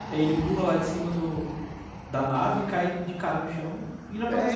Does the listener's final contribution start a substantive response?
Yes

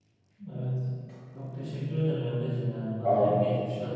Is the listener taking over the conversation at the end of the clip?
No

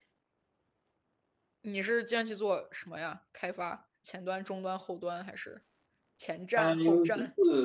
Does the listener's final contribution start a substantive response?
Yes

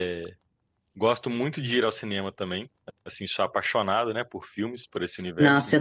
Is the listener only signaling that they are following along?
No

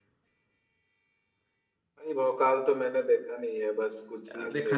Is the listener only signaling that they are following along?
No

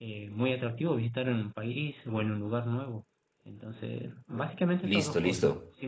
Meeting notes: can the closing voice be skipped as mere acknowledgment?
No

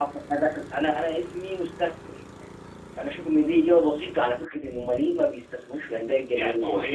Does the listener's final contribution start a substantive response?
Yes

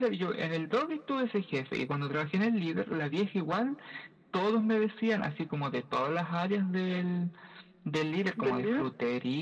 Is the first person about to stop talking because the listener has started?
No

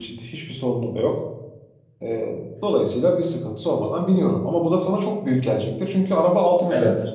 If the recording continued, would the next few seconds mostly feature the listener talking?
Yes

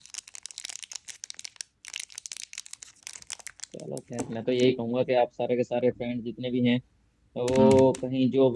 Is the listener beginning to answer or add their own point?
No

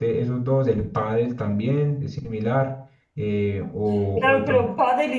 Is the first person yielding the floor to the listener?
Yes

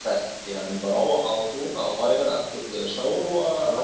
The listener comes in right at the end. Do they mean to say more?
Yes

